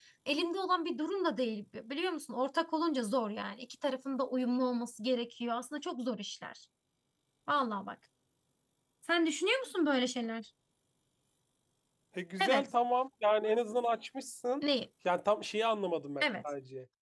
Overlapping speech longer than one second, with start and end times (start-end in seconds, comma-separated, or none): none